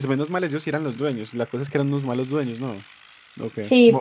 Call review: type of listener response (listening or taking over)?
taking over